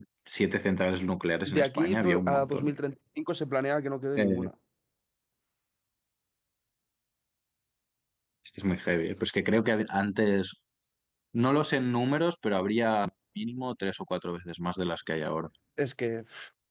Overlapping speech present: Yes, from 1.5 s

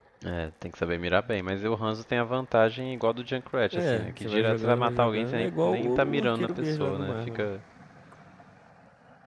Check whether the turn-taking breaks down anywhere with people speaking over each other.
Yes, from 3.7 s

